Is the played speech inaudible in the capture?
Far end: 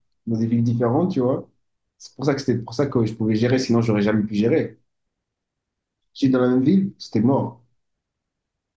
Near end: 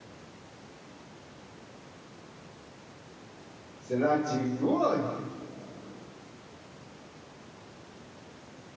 Yes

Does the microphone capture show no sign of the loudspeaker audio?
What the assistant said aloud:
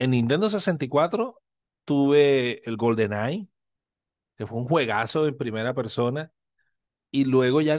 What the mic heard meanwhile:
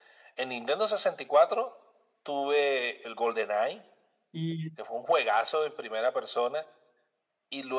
No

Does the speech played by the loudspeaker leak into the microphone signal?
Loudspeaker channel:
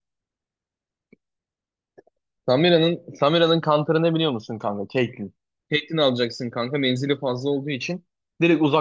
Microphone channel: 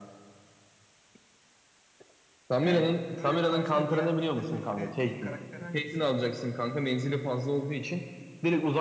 Yes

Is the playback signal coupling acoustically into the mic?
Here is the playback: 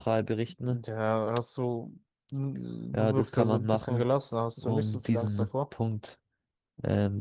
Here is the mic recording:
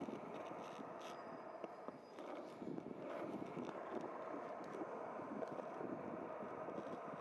No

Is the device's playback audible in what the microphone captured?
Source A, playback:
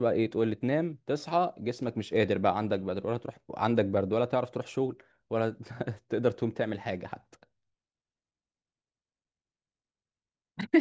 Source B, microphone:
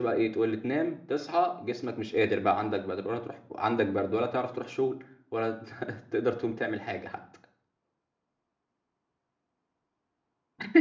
Yes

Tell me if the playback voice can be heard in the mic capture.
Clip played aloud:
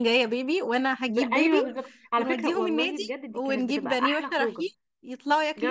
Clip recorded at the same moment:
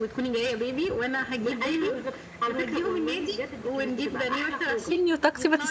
Yes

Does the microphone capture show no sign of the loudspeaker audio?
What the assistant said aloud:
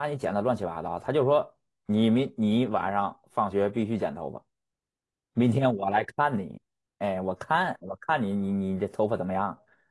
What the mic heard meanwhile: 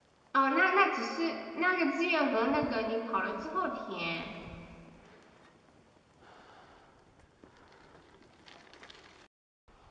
Yes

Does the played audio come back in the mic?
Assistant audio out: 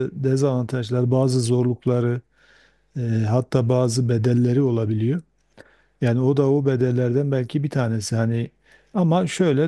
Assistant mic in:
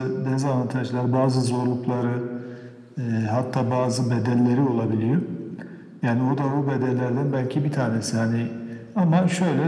Yes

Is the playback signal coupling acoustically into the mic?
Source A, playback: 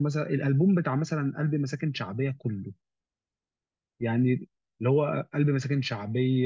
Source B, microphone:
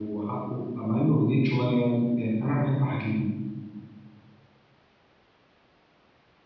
No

